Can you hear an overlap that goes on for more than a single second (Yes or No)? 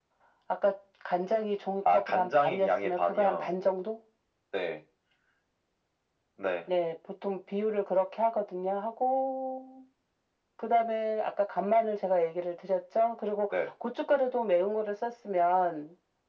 Yes